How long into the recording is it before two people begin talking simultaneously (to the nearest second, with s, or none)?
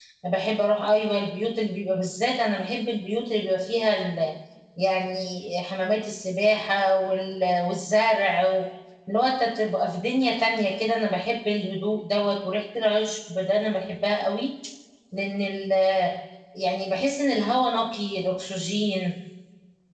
none